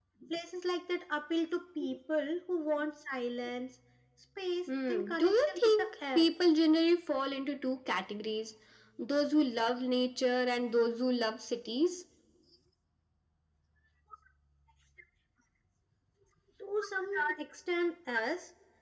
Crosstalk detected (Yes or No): Yes